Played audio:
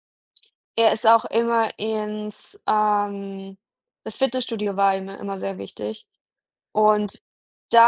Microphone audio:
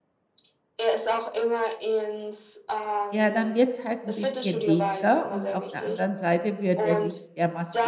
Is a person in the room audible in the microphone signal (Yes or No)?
Yes